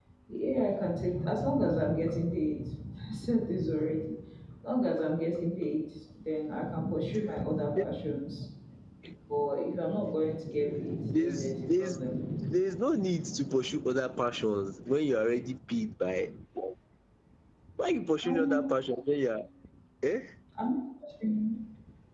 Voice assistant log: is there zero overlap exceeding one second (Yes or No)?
No